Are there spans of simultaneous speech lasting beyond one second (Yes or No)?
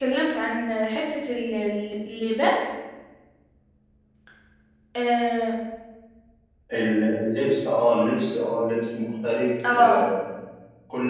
No